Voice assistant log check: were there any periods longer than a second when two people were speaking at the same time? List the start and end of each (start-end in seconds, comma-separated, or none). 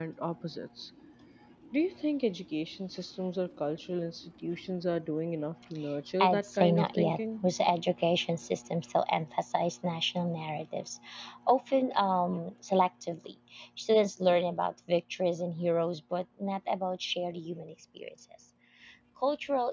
6.2-7.4